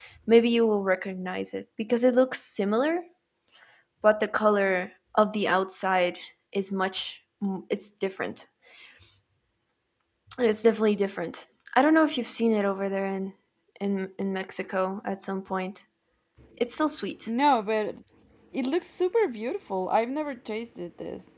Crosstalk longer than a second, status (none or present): none